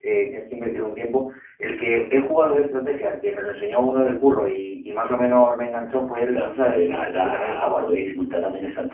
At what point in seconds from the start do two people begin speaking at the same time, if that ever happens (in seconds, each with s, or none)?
6.3 s